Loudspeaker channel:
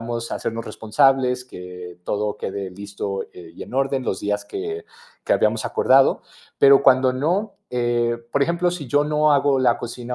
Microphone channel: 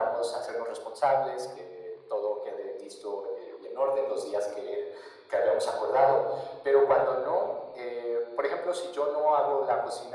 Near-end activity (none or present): none